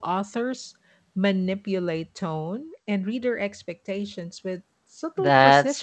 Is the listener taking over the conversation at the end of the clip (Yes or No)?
Yes